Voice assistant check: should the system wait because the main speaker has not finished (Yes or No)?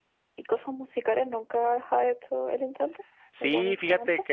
No